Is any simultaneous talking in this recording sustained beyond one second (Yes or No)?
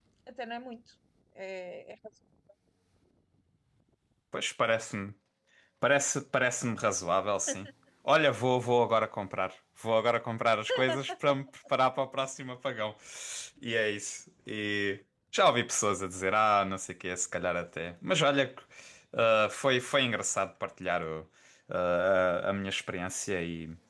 No